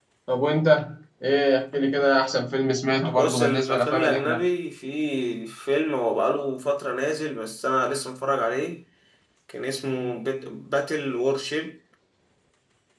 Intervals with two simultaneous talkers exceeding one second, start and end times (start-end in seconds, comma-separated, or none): 3.1-4.4